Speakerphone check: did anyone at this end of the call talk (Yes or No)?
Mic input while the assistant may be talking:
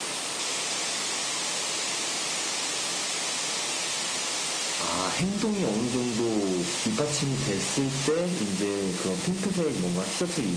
No